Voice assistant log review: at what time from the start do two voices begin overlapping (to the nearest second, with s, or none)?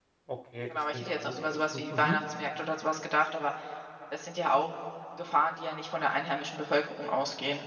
1 s